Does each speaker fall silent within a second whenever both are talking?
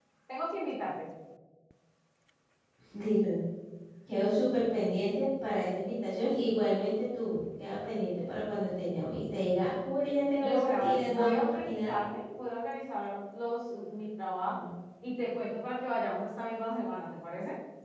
No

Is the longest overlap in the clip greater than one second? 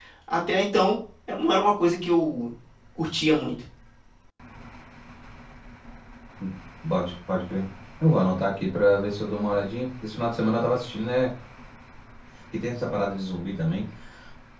No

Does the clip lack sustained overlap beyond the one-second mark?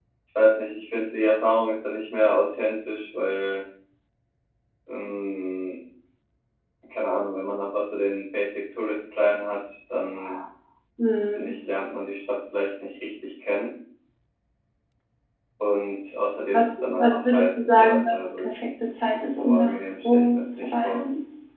No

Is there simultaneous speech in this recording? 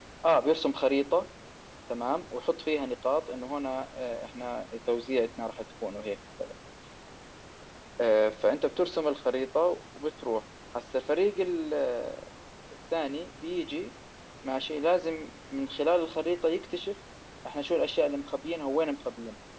No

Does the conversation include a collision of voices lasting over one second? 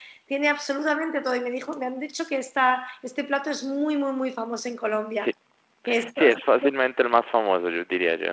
No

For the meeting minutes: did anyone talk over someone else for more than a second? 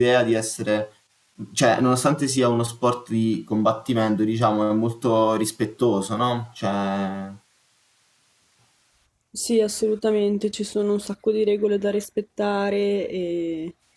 No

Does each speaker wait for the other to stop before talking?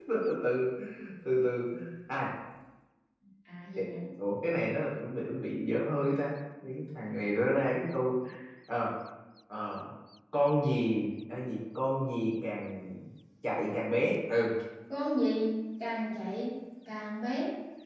Yes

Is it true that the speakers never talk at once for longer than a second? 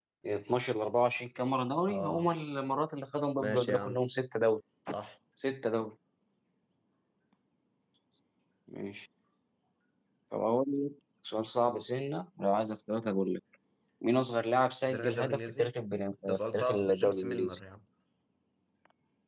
No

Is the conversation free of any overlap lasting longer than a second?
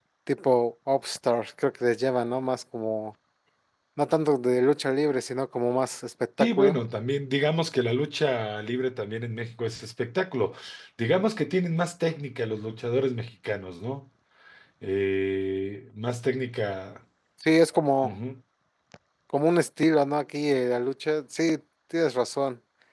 Yes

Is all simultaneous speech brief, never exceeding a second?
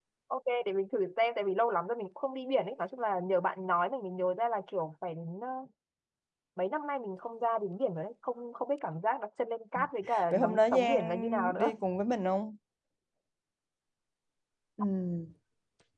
No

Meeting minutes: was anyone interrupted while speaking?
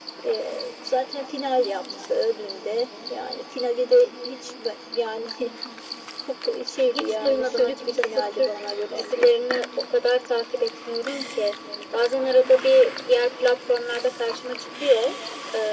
Yes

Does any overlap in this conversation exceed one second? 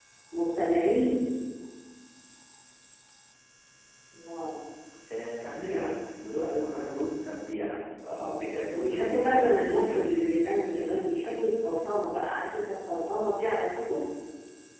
Yes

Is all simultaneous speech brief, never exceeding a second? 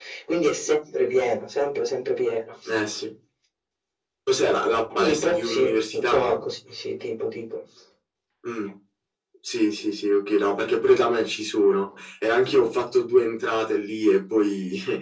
No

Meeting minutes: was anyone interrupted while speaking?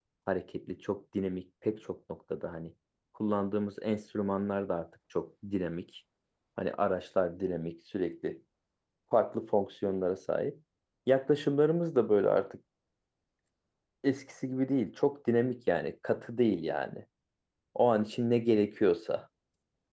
No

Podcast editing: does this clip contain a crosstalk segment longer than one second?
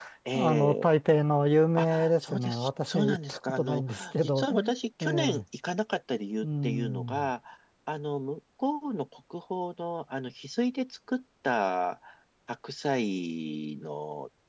Yes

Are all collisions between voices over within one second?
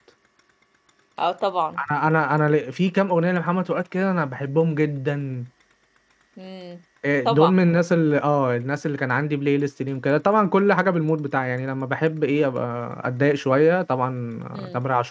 Yes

